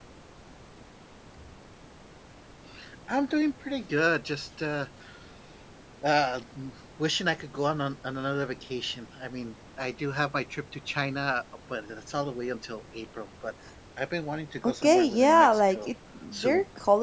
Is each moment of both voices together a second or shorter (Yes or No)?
No